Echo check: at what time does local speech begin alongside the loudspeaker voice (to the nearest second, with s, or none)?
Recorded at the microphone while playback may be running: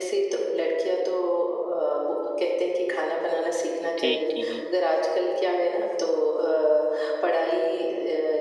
4 s